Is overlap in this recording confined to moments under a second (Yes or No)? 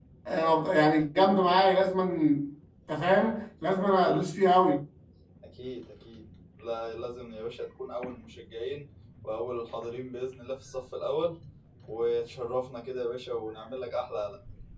Yes